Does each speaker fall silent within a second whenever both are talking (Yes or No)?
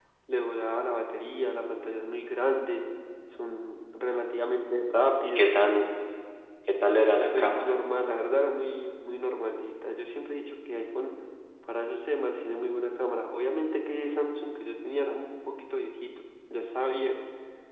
Yes